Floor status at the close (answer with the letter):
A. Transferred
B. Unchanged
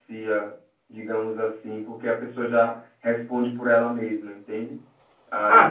A